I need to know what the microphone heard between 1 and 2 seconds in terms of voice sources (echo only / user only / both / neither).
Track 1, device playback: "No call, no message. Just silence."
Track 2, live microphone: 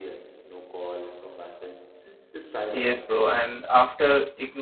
echo only